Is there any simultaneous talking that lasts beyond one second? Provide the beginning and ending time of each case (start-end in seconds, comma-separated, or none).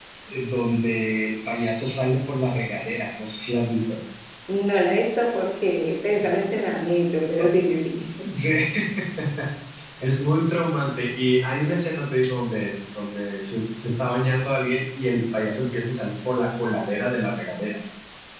none